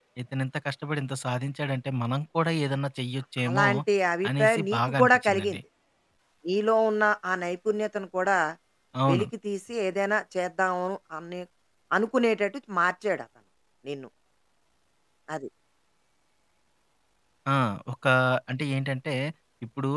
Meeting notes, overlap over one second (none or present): present